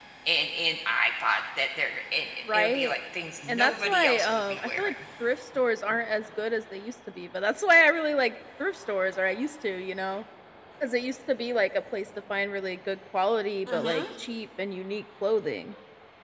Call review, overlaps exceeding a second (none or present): present